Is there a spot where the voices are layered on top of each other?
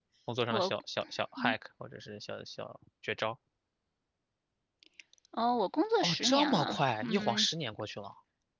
Yes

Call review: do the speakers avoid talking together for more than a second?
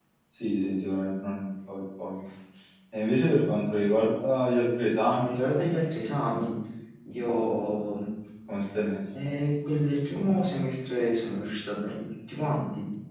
Yes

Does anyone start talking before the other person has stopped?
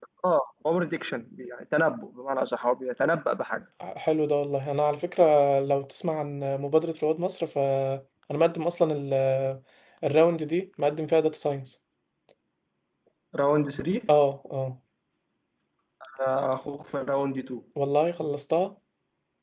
No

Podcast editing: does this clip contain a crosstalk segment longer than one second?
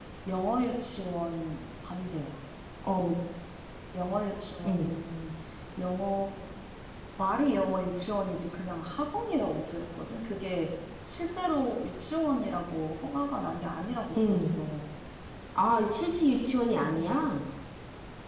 No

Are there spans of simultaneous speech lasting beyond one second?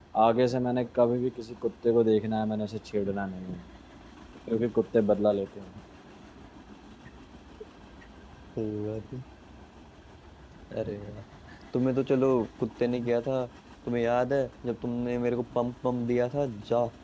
No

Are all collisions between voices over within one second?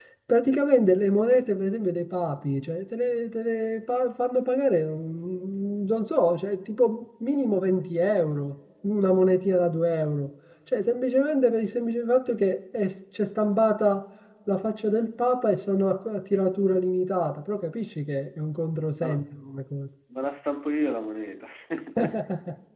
Yes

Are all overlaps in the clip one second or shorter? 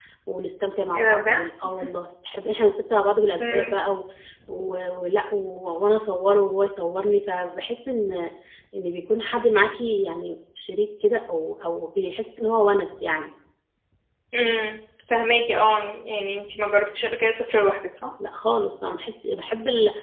Yes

